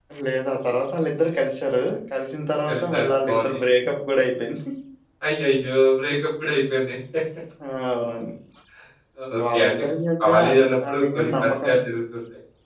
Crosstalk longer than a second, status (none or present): present